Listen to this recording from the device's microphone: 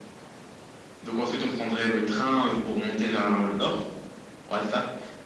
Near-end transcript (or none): none